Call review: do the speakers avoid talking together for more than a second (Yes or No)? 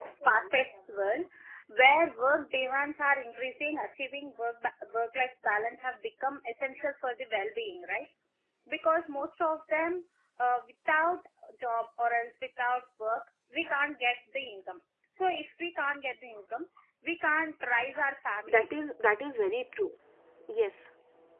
Yes